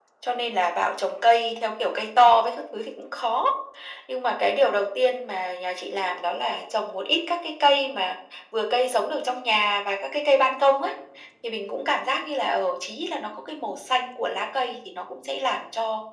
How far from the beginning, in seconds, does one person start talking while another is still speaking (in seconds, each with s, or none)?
none